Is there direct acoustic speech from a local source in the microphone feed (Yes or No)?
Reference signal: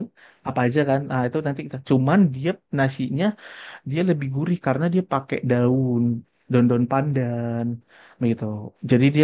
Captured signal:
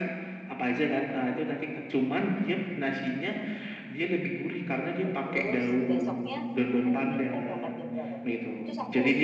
Yes